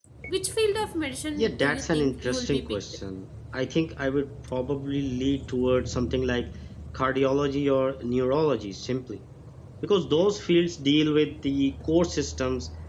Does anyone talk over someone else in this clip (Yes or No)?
Yes